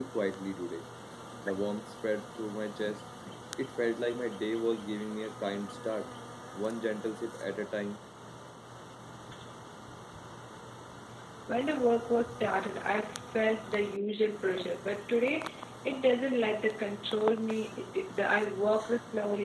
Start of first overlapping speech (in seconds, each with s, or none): none